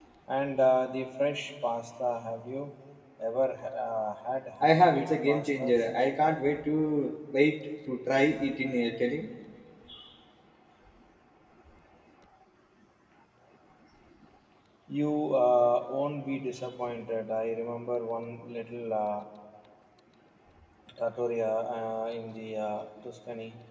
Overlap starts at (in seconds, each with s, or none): 4.6 s